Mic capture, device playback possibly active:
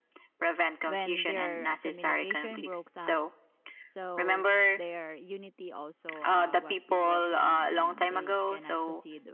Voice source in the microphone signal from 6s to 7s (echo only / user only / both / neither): both